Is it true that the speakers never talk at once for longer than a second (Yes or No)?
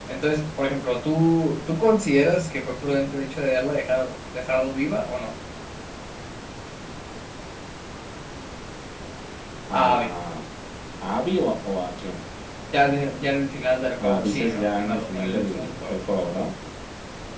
No